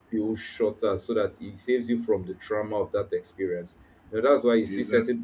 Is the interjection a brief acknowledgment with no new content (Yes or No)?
Yes